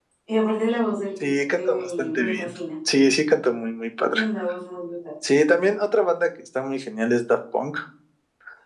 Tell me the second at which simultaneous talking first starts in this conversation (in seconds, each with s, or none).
1.2 s